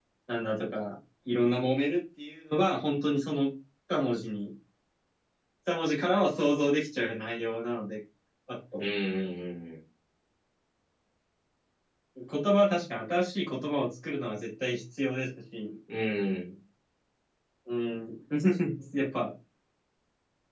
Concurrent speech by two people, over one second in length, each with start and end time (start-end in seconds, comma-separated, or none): none